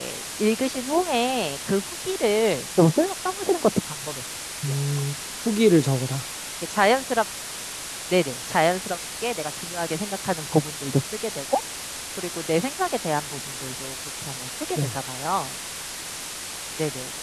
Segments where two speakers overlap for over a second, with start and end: none

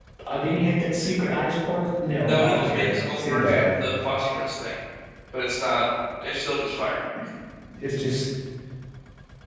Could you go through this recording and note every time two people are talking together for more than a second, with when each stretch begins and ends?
2.2-3.7

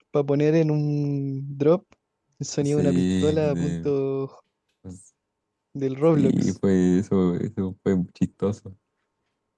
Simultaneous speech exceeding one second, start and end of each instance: 2.6-3.9

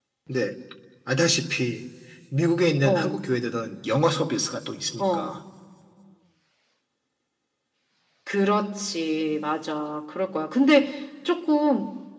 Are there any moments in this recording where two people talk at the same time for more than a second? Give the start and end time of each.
none

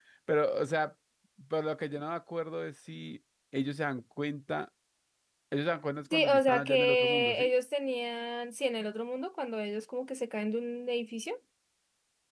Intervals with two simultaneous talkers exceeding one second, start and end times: 6.1-7.5

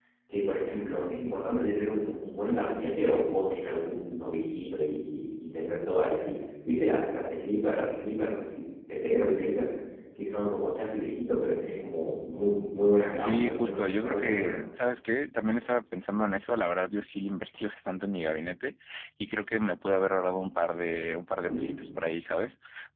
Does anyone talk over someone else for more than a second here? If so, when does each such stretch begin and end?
13.1-14.5

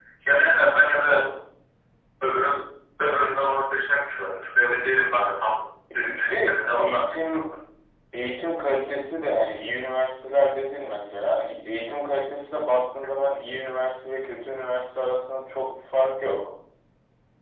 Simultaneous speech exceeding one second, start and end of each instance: 6.0-7.4

